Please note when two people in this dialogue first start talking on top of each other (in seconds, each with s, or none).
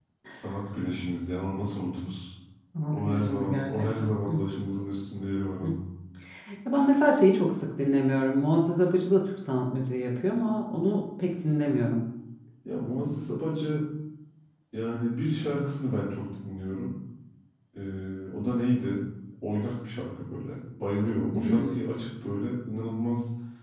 2.9 s